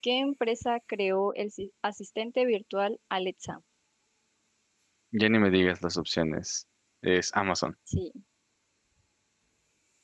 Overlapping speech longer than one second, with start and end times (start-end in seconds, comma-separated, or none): none